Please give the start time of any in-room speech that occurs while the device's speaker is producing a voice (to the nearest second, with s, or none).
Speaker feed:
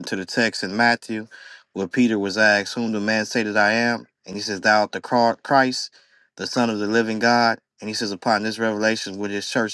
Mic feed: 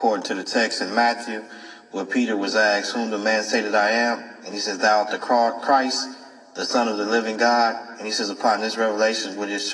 none